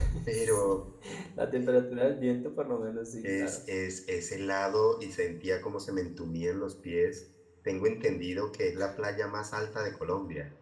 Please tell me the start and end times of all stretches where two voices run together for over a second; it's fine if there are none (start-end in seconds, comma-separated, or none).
none